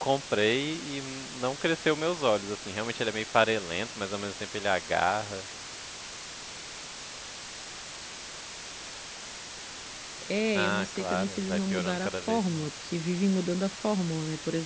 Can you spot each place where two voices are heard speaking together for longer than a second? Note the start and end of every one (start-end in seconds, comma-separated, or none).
10.6-12.7